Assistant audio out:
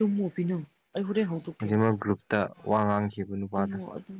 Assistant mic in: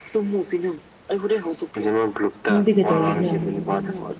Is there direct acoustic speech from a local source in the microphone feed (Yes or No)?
Yes